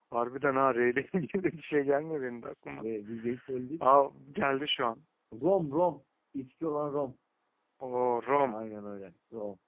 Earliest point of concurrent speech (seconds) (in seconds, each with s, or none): none